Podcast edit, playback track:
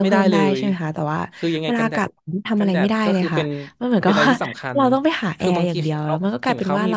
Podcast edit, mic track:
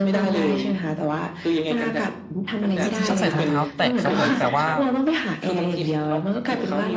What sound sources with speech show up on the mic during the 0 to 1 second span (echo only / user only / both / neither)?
echo only